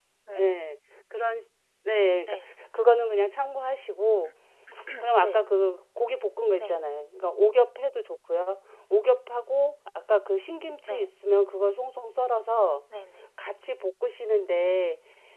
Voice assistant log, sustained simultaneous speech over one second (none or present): none